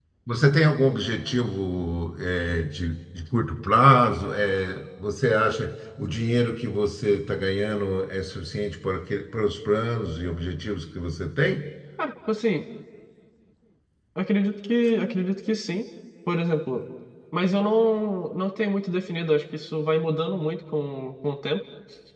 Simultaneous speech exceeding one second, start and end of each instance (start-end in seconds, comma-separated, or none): none